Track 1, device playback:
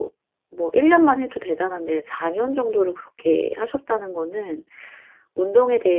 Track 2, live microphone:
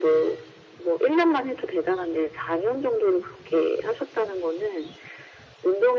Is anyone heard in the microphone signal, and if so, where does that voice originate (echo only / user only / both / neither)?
echo only